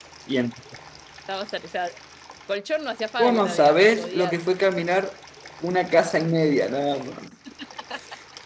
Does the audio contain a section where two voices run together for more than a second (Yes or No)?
Yes